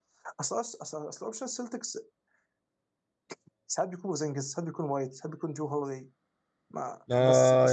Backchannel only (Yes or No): No